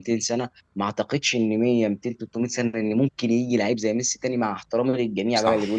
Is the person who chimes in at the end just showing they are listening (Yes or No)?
Yes